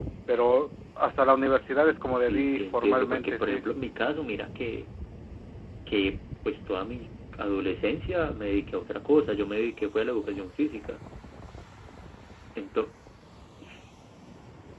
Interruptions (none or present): present